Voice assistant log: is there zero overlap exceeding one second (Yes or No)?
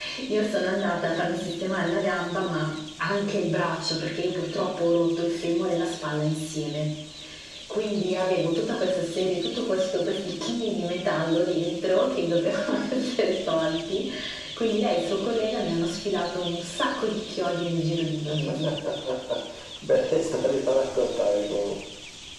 Yes